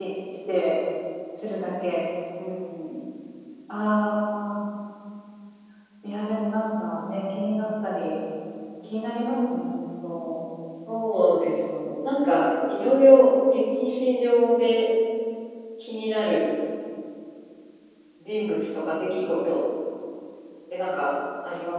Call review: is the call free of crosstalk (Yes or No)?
Yes